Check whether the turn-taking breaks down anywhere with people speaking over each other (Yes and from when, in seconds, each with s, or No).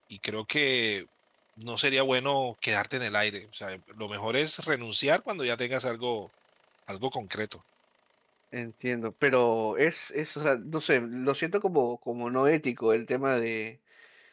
No